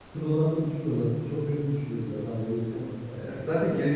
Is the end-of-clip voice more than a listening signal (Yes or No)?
Yes